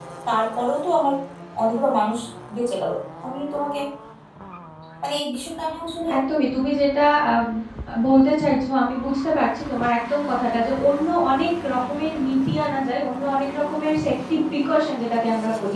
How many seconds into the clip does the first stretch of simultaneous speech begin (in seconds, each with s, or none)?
none